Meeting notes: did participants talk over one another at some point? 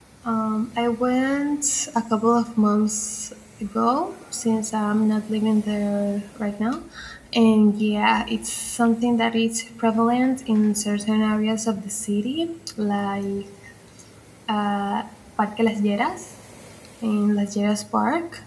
No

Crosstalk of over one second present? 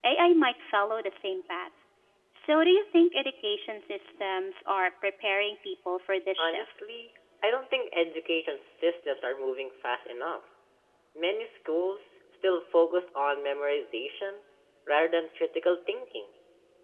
No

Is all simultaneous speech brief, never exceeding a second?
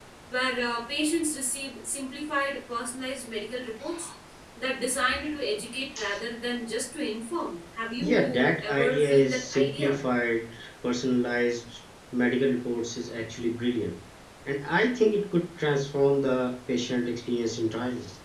No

